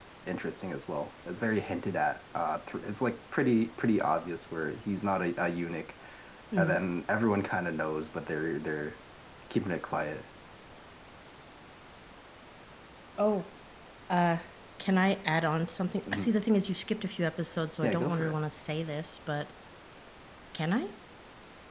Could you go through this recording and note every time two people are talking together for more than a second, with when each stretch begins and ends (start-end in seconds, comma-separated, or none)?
none